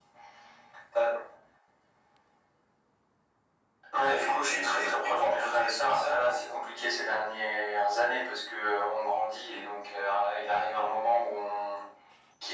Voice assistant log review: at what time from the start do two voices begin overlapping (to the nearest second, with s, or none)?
4 s